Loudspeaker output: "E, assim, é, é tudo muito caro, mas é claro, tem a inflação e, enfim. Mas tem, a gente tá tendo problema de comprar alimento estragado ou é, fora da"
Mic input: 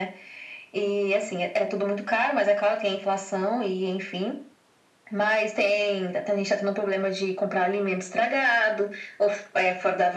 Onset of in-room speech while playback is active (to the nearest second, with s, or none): none